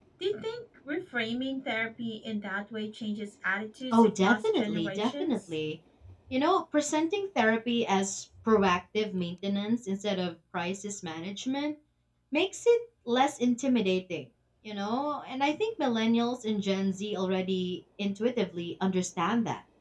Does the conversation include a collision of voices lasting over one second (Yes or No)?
Yes